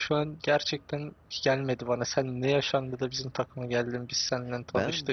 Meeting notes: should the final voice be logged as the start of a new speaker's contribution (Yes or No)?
Yes